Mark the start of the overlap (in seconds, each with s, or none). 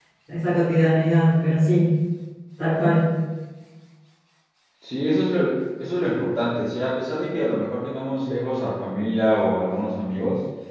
none